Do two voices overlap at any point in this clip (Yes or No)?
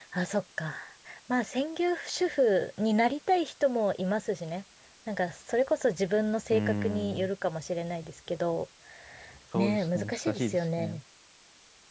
Yes